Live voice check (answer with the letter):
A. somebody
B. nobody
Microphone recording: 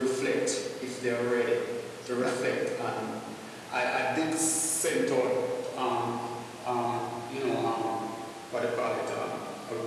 A